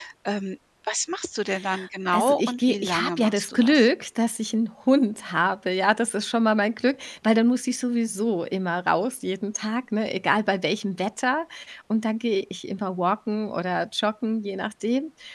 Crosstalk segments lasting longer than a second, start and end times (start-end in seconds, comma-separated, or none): 2.1-3.8